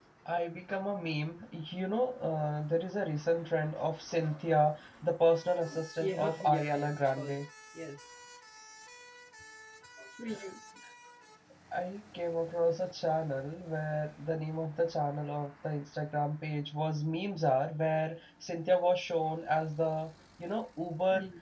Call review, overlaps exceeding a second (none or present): present